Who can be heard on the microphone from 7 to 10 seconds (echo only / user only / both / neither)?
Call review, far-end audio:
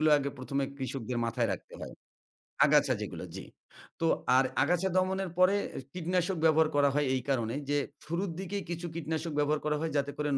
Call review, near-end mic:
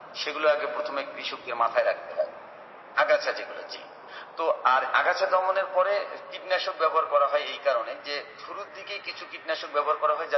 echo only